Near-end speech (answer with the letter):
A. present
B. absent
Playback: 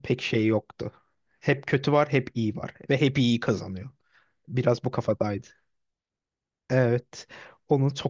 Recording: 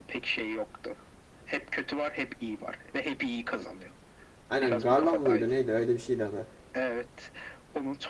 A